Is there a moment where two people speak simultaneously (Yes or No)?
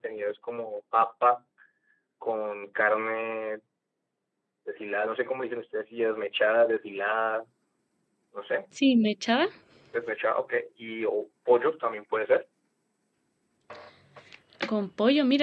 No